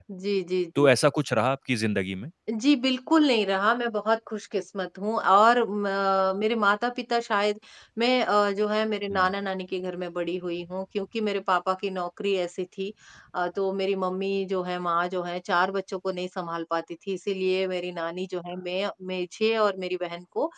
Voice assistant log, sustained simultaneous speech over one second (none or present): none